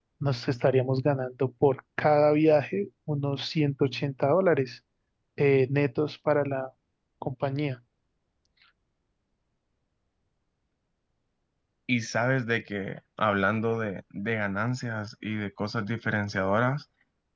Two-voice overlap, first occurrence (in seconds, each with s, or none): none